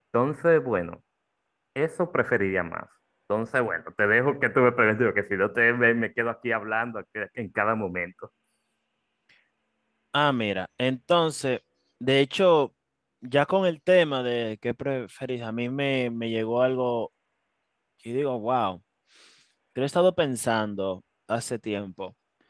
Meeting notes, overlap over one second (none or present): none